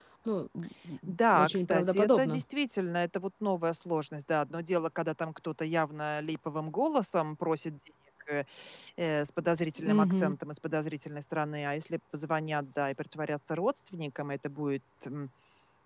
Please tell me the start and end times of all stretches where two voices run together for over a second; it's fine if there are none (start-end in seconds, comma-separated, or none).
1.1-2.4